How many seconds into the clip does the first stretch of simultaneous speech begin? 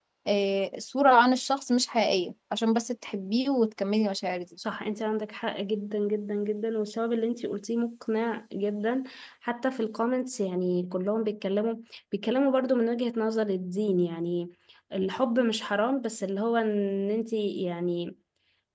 none

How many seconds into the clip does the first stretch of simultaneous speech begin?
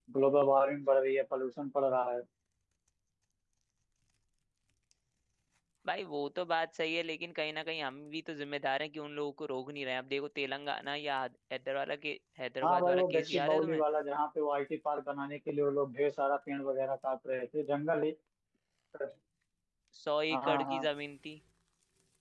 13 s

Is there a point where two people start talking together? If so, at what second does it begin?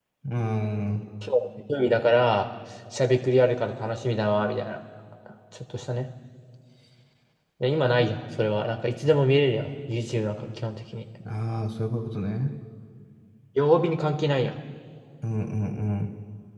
none

